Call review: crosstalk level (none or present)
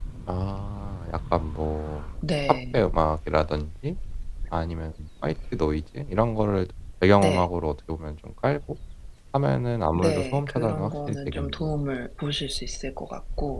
present